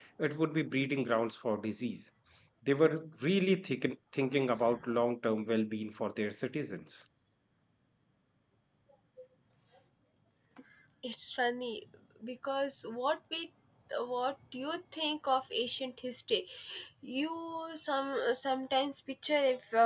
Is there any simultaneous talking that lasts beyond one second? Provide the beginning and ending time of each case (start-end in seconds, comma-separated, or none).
none